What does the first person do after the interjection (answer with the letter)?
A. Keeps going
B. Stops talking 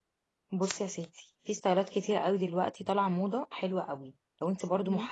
A